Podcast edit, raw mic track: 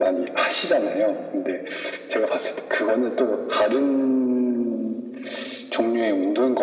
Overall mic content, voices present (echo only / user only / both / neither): echo only